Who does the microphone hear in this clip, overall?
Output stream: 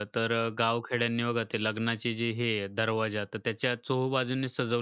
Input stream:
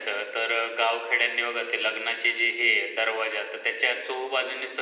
echo only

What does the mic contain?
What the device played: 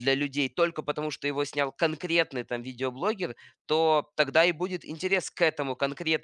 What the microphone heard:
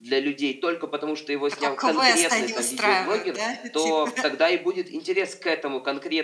both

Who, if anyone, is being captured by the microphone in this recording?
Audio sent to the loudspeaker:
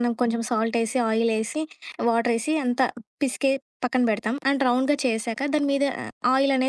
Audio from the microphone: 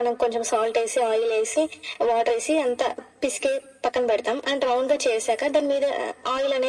echo only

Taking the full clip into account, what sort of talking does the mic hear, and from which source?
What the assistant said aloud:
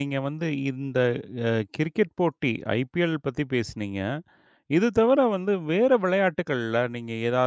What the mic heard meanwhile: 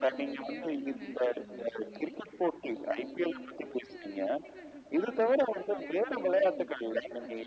both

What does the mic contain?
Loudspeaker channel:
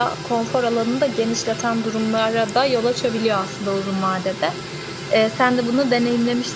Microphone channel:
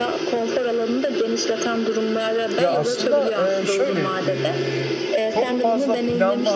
both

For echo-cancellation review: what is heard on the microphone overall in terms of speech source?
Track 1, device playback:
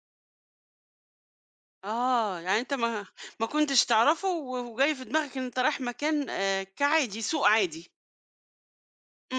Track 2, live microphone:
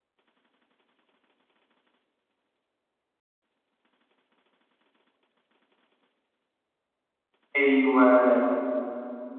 user only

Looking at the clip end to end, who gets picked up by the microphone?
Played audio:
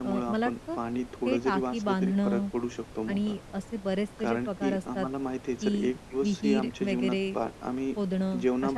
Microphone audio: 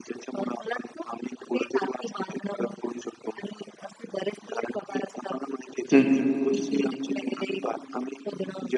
both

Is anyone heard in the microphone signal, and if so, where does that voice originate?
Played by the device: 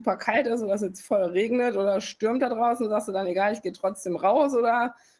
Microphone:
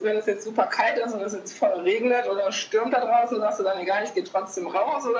echo only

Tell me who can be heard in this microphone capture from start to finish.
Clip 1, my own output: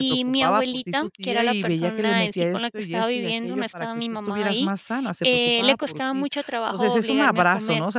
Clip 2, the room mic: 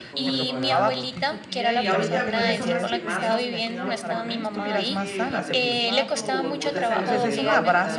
both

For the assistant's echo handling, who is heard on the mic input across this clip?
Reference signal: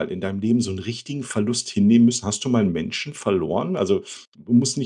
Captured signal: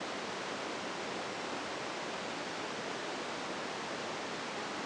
neither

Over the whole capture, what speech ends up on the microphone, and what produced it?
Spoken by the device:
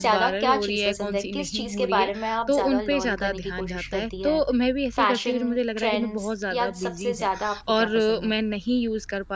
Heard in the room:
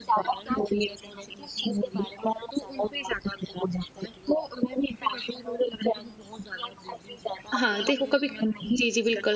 both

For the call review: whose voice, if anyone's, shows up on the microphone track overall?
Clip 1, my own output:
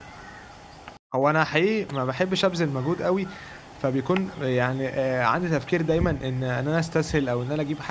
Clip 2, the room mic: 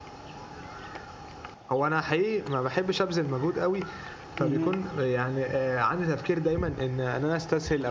both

